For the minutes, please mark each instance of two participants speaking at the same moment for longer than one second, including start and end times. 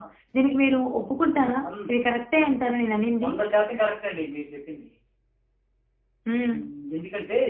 none

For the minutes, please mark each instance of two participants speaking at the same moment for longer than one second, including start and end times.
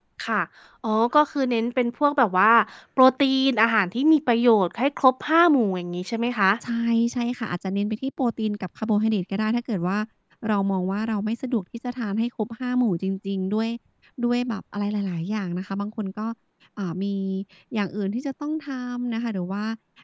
none

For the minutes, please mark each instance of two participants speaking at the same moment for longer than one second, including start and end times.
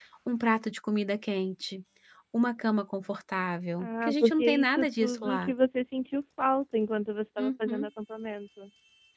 3.8-5.5

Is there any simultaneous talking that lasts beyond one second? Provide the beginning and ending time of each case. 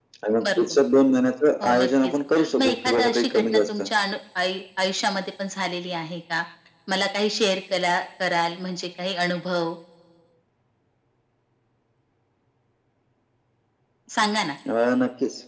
2.6-3.8

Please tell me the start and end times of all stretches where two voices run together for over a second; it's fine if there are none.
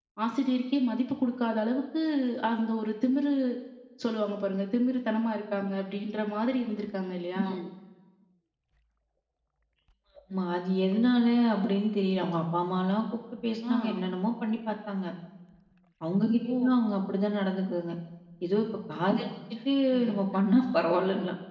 none

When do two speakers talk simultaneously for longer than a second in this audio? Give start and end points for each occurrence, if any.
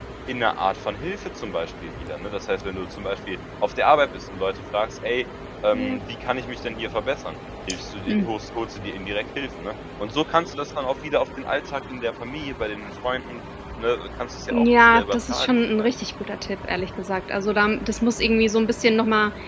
14.5-15.9

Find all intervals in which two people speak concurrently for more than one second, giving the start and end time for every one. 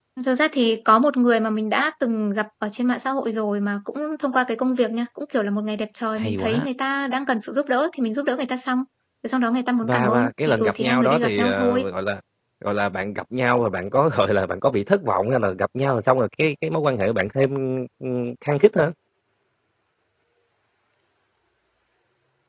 9.8-11.9

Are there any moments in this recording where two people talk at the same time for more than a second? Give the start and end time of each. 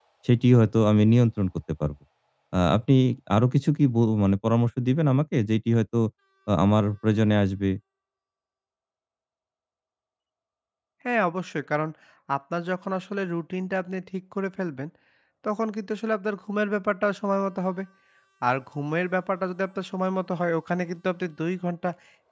none

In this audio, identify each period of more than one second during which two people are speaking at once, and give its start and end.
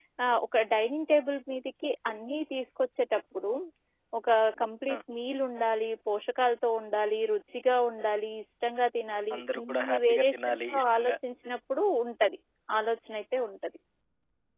9.3-11.1

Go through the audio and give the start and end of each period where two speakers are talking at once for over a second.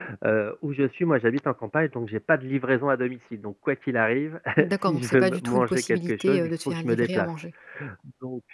4.9-7.3

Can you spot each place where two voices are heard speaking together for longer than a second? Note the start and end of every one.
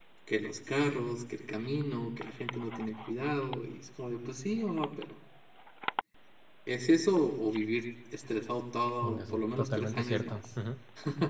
9.0-10.4

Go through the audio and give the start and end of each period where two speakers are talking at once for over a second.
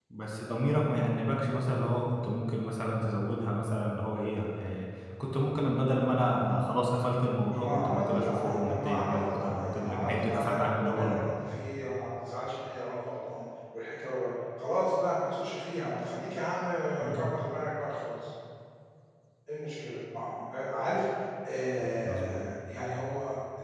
7.5-11.2

